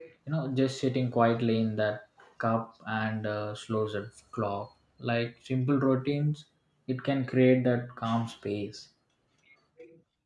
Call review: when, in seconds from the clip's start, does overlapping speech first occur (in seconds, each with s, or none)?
none